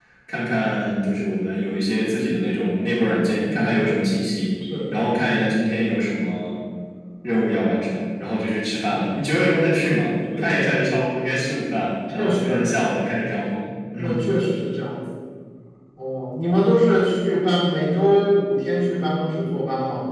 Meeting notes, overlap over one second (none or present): none